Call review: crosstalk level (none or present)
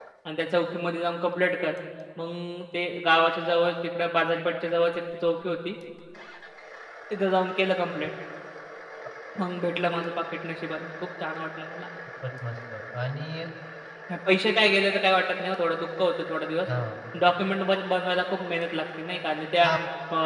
none